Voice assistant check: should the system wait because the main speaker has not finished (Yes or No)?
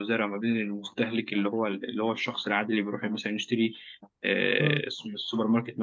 Yes